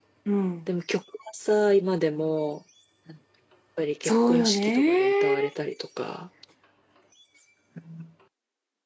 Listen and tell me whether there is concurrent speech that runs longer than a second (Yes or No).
Yes